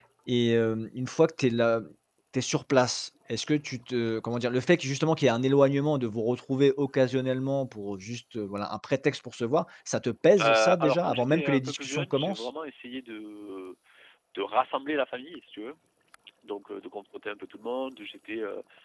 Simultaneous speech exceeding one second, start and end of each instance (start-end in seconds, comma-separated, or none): 10.4-12.5